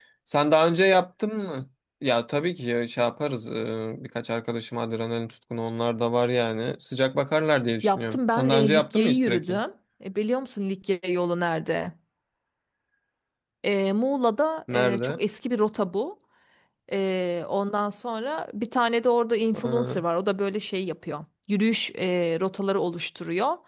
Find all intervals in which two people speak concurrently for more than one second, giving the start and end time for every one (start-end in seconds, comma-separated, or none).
7.8-9.6